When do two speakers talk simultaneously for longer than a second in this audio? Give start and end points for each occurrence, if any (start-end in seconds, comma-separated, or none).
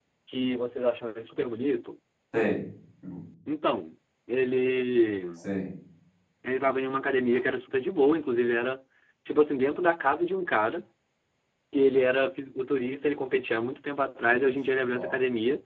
none